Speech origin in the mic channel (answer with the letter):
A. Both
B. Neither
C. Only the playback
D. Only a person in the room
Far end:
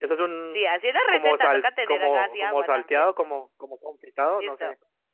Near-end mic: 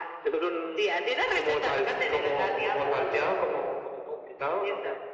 C